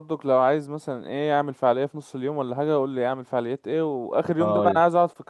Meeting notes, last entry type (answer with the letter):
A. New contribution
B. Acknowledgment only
B